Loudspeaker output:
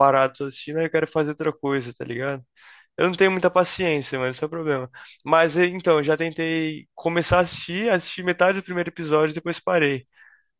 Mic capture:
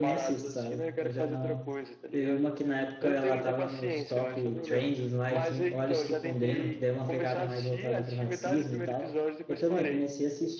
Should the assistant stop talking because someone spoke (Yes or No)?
Yes